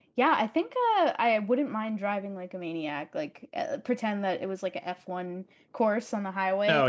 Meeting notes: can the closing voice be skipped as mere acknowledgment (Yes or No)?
Yes